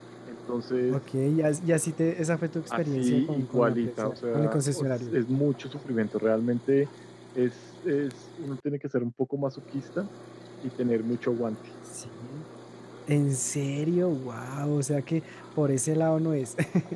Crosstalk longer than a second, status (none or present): present